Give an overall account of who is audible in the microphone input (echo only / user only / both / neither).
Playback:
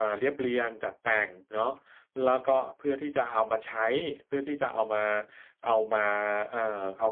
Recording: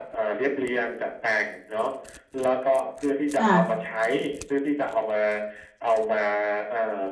both